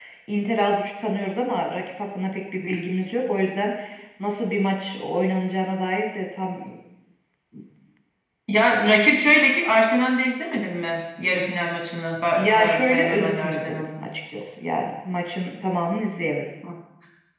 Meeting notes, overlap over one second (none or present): present